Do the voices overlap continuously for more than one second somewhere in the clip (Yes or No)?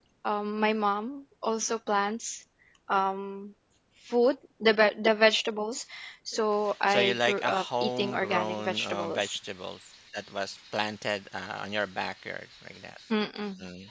Yes